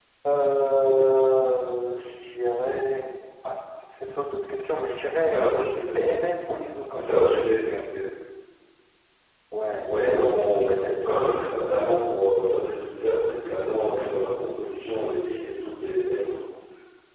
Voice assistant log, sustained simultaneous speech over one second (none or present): present